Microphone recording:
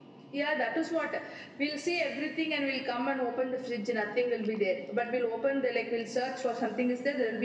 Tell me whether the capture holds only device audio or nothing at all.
Yes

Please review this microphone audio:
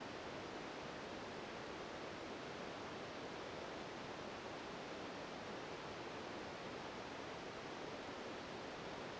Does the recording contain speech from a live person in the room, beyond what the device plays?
No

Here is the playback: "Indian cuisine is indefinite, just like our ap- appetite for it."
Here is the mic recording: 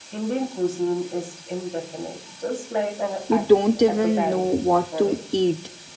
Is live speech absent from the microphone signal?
No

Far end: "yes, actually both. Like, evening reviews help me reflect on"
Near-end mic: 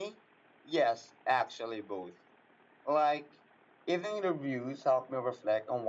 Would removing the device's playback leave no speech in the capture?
Yes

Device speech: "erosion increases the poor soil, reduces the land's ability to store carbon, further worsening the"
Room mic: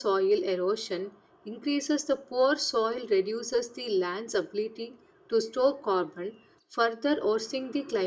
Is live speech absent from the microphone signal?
Yes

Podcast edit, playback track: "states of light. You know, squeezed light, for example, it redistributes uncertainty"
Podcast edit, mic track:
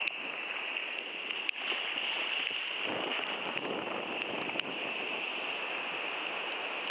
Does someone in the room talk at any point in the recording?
No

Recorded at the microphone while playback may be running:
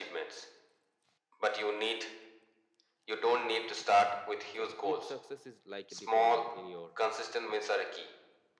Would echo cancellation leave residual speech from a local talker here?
Yes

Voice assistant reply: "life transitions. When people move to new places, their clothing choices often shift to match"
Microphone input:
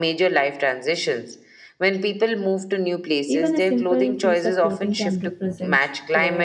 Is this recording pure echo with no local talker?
No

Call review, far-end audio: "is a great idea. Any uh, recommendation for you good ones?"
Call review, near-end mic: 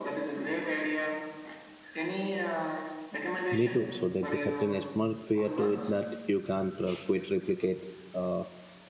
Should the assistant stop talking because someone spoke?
Yes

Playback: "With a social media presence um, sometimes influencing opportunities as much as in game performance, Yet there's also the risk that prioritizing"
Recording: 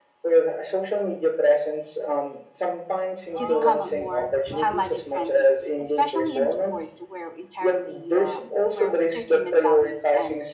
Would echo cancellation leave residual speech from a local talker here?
Yes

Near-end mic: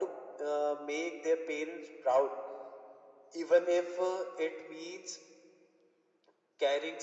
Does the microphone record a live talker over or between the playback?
No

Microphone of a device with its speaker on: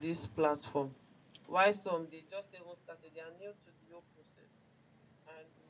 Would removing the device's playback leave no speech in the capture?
No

